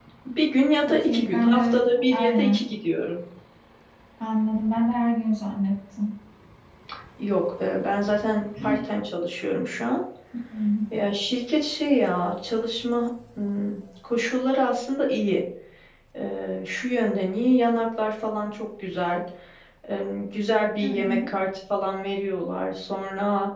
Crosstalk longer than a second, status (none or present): present